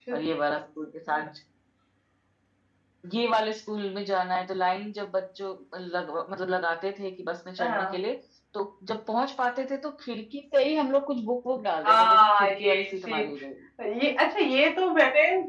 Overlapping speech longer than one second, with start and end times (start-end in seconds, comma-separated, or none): 11.8-13.2